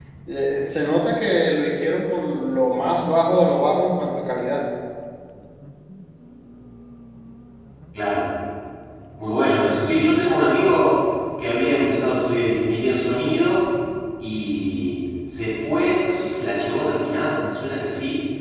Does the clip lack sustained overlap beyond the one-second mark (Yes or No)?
Yes